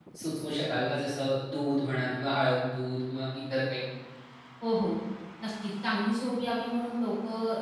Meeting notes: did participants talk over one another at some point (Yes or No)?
No